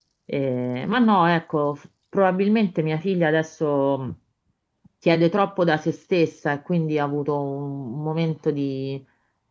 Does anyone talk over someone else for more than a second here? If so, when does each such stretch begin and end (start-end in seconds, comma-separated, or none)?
none